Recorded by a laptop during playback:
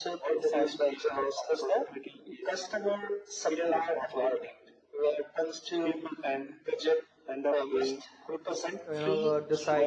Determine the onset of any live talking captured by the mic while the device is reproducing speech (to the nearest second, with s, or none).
9 s